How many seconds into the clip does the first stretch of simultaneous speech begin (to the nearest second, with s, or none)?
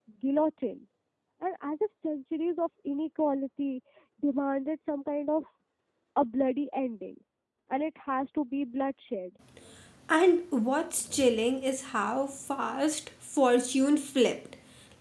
none